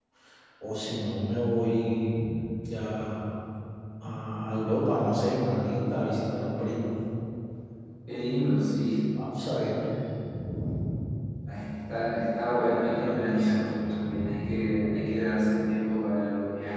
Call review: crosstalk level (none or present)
present